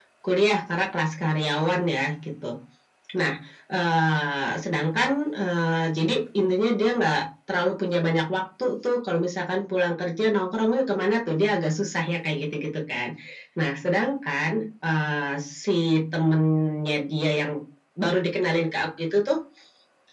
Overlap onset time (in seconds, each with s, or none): none